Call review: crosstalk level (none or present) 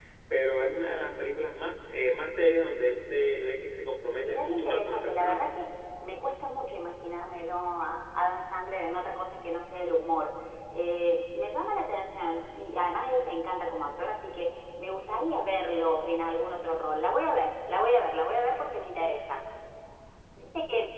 present